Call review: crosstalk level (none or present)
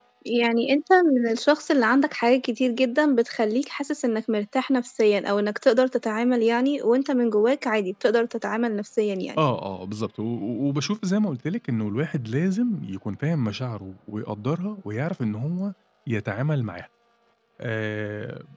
none